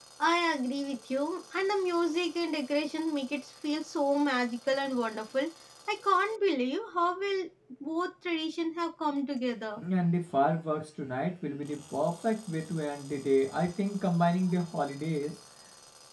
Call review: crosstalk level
none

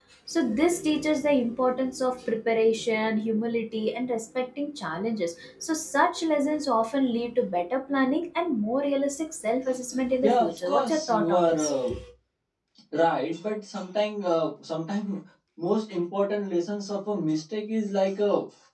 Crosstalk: present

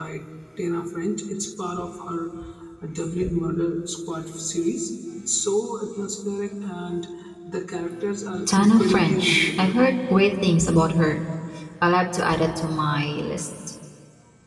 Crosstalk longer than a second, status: present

